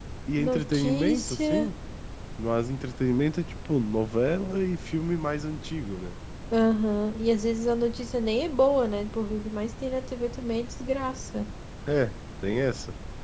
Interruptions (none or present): present